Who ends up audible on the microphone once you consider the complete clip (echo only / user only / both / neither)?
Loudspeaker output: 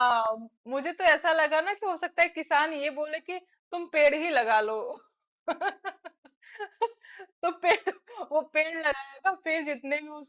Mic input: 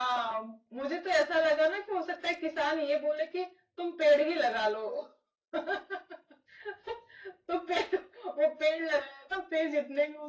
echo only